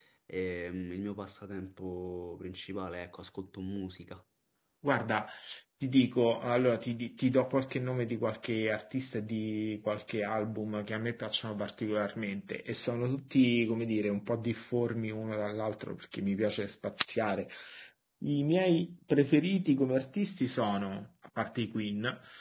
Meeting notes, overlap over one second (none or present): none